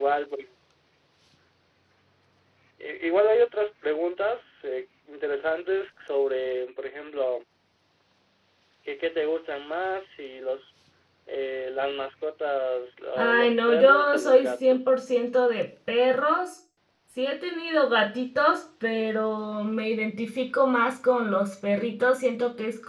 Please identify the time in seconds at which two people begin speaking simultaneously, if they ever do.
13.2 s

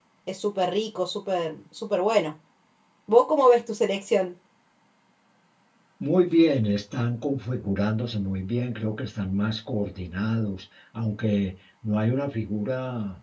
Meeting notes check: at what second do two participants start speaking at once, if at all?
none

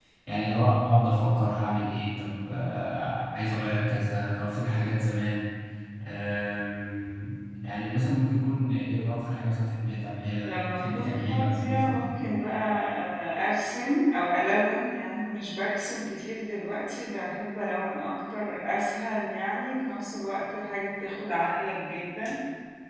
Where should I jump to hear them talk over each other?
10.4 s

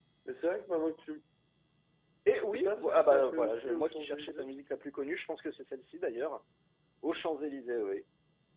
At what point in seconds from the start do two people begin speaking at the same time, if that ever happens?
2.5 s

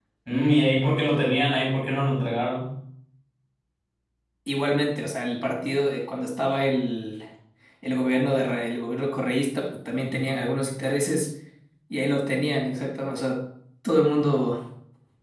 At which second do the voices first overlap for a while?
none

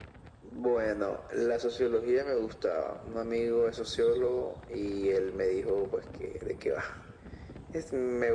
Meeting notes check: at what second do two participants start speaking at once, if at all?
none

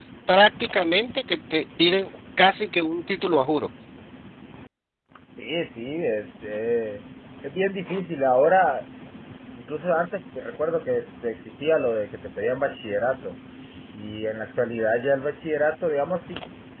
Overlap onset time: none

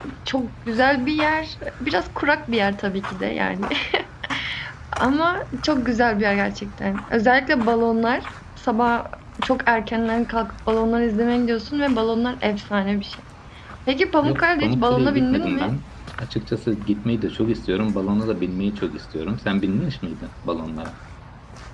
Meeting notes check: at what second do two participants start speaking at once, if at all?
14.2 s

